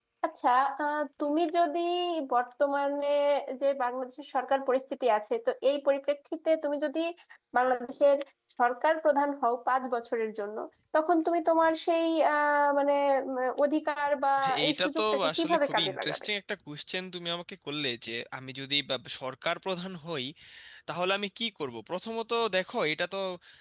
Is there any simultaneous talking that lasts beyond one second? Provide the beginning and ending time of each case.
14.7-16.2

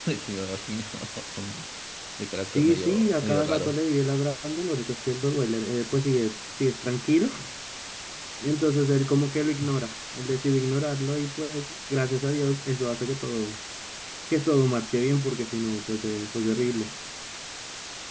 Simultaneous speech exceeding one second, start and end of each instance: 2.5-3.8

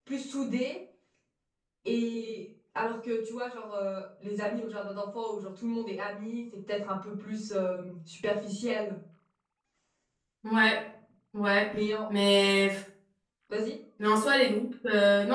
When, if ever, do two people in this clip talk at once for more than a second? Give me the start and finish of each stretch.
none

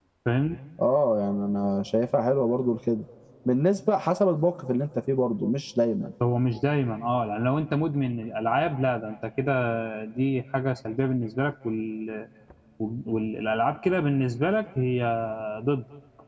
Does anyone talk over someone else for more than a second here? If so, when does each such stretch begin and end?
none

